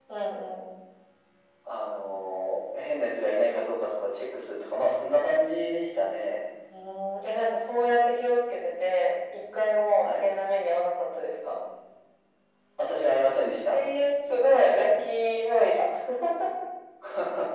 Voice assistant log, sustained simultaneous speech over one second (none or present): none